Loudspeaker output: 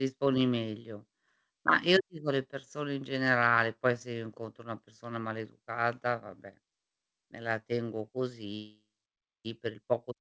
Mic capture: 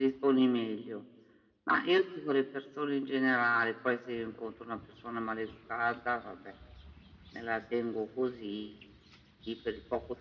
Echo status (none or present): present